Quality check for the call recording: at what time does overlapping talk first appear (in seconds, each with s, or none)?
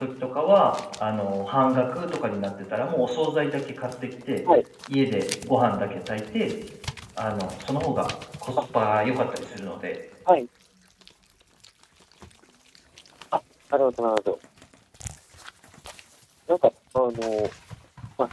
none